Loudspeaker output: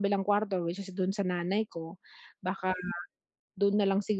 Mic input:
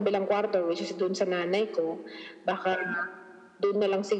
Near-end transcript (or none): none